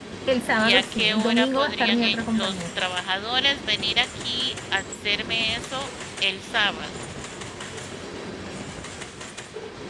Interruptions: present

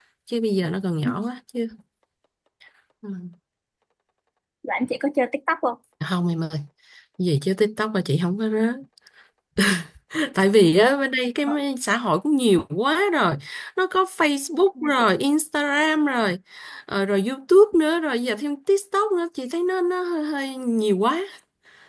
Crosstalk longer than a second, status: none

